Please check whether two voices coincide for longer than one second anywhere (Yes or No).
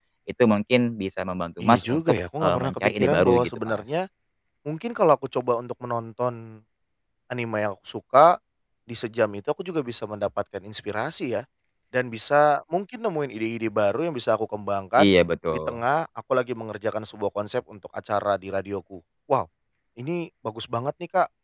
Yes